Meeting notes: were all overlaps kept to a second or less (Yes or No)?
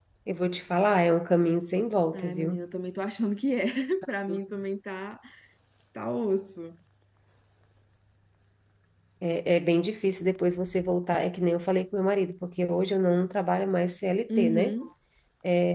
Yes